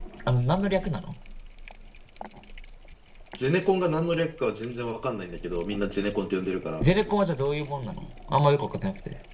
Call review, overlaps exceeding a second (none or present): none